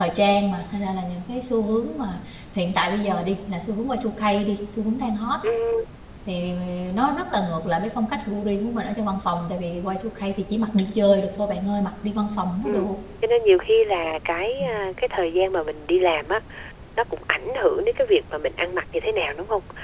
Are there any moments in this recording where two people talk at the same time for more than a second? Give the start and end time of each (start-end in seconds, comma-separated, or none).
none